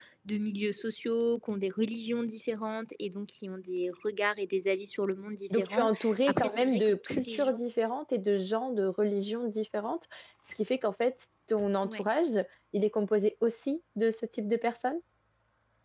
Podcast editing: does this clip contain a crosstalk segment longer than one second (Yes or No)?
Yes